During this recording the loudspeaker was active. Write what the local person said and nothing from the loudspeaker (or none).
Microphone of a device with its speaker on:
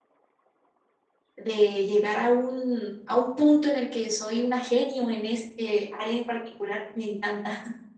de llegar a un, a un punto en el que soy una genio en este área en particular, me encanta.